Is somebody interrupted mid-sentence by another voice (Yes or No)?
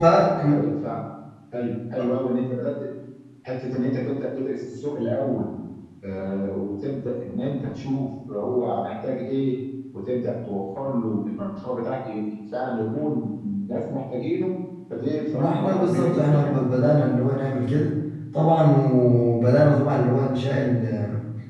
Yes